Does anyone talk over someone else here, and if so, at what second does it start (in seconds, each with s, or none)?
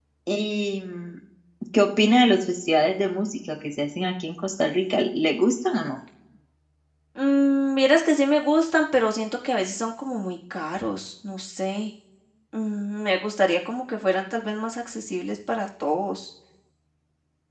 none